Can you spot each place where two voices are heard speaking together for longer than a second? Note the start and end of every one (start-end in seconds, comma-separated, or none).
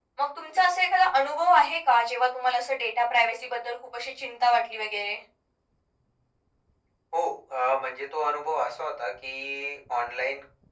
none